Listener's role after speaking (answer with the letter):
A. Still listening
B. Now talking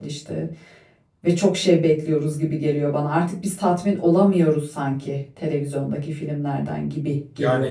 B